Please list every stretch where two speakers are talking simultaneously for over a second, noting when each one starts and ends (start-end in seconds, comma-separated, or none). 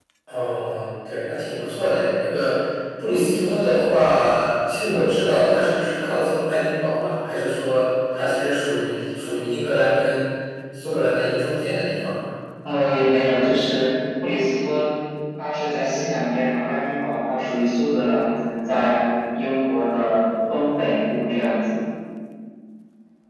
none